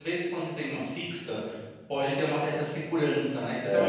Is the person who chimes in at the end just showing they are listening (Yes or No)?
Yes